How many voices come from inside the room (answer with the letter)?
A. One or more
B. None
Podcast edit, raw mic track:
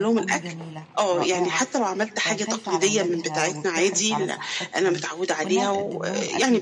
A